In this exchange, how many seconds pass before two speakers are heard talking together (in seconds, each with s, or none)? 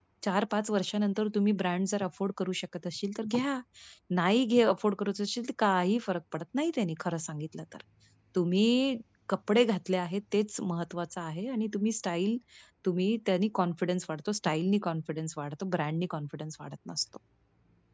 none